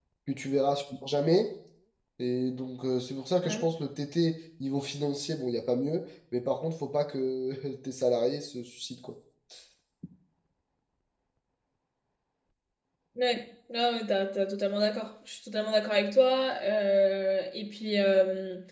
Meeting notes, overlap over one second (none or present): none